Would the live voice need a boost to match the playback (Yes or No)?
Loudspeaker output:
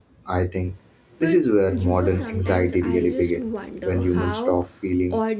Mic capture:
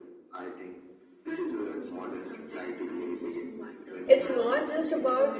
No